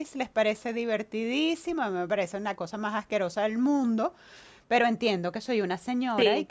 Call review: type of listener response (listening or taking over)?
listening